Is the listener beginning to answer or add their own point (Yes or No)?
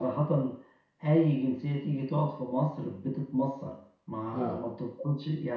No